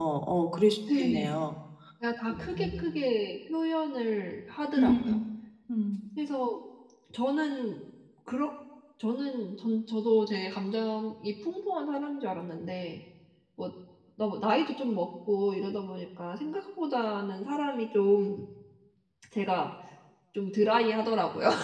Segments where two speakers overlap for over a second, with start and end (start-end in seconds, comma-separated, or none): none